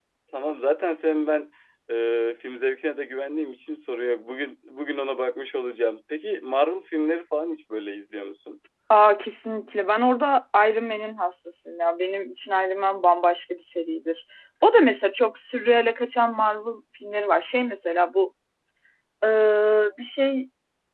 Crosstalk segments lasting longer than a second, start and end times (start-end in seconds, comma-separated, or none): none